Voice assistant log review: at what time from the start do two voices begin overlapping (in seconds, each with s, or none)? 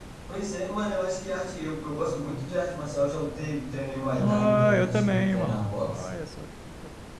4.2 s